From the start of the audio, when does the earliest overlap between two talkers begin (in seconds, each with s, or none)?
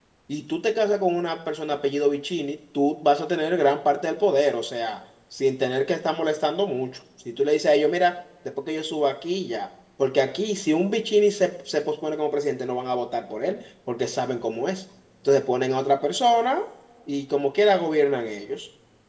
none